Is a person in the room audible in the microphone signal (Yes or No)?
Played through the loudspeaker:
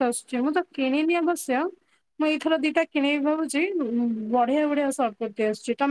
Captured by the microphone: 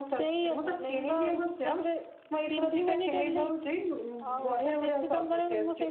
Yes